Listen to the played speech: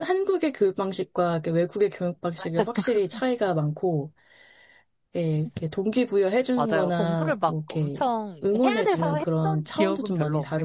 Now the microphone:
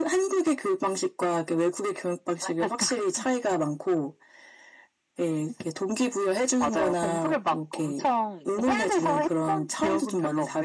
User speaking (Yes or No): No